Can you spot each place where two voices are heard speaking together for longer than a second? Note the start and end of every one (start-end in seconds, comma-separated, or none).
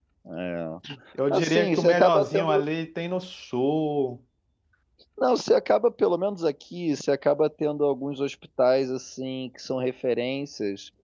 1.3-2.6